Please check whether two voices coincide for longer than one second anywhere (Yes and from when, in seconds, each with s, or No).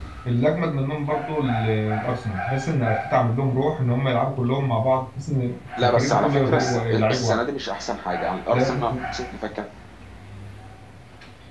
Yes, from 5.8 s